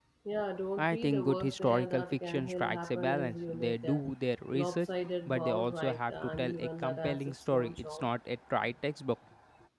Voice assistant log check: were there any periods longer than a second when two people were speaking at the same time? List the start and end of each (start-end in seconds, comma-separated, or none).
0.8-4.0, 5.3-8.1